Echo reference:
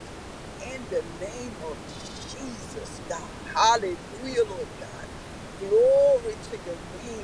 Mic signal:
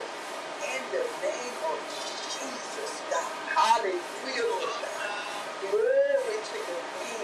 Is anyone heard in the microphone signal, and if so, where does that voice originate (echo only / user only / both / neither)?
both